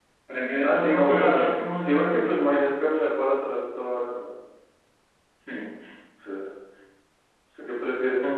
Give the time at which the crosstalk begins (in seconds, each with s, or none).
0.6 s